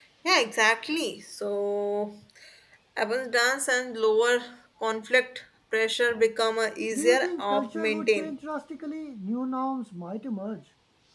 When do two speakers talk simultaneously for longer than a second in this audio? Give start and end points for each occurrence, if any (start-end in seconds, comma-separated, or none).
6.9-8.3